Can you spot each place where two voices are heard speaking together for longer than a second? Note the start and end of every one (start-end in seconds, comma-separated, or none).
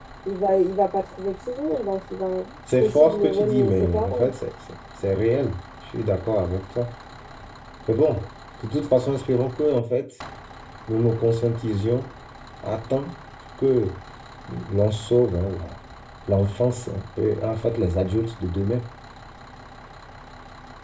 2.8-4.3